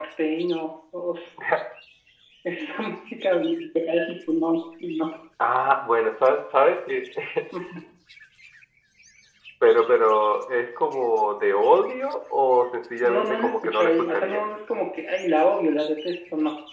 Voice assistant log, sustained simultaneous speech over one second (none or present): present